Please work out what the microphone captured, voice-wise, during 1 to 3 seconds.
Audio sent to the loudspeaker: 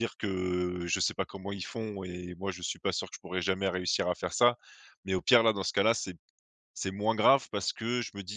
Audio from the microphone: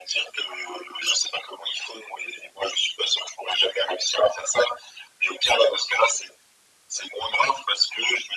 echo only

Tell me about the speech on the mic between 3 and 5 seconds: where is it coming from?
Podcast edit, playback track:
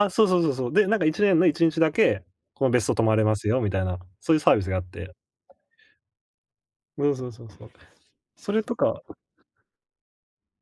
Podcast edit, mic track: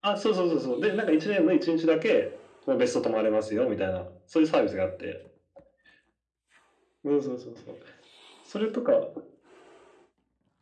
echo only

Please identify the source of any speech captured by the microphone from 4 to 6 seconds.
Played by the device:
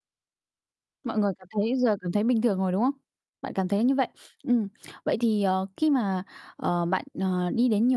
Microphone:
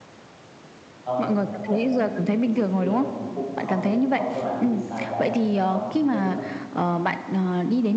both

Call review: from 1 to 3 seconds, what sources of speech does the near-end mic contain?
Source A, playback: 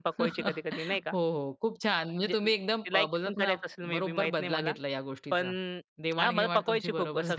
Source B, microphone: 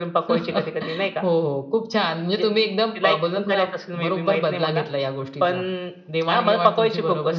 echo only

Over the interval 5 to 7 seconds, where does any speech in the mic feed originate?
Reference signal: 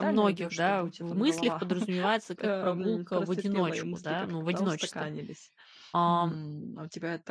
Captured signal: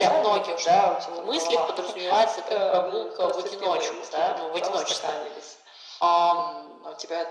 echo only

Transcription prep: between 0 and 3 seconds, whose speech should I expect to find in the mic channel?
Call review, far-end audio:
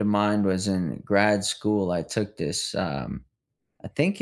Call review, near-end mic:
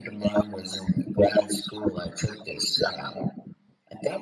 echo only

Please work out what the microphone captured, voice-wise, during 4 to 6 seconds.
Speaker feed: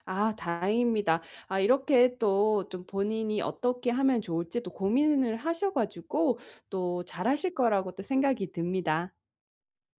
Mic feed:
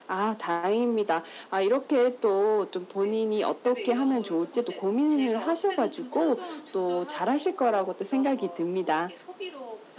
both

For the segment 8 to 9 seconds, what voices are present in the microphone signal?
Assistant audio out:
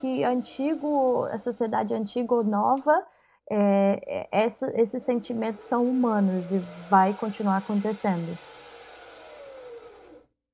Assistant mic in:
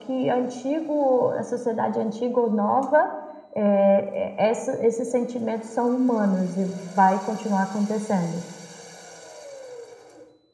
echo only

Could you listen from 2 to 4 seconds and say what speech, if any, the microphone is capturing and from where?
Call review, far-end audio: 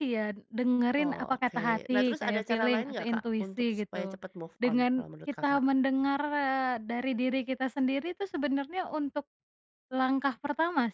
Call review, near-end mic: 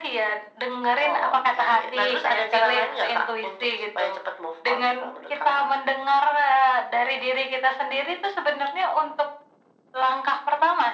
echo only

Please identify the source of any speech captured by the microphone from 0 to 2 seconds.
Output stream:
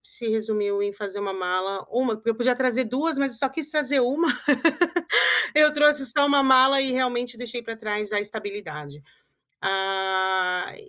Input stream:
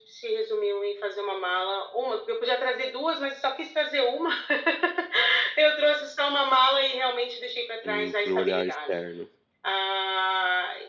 echo only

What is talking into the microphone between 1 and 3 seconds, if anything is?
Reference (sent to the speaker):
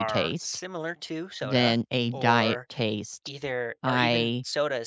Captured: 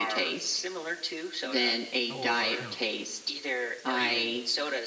both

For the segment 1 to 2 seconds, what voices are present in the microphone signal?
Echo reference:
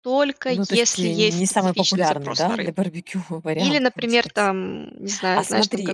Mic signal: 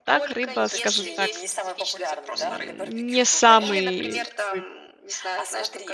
both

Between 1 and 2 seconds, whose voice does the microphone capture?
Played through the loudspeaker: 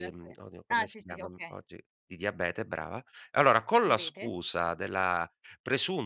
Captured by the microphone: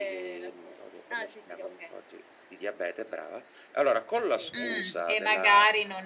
echo only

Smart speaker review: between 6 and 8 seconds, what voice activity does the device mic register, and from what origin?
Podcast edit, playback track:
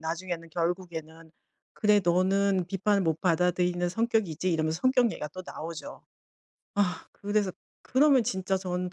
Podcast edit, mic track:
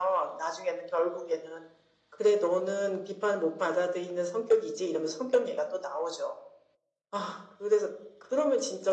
echo only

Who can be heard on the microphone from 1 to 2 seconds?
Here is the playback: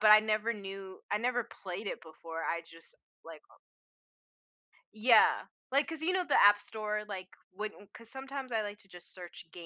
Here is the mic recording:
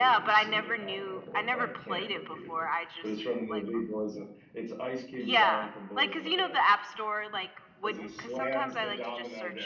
both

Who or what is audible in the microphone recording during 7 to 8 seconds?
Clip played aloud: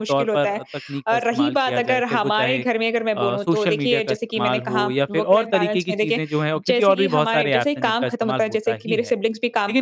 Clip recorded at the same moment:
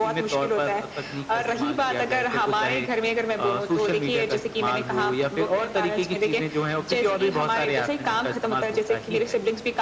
echo only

